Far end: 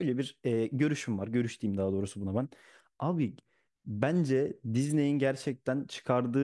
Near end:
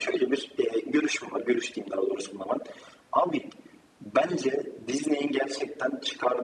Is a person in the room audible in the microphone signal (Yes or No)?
No